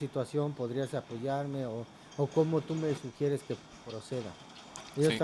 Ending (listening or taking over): listening